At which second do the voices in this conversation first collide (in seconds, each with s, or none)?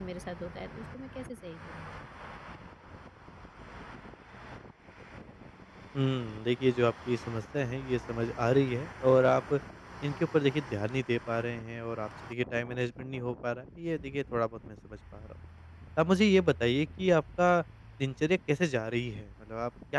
none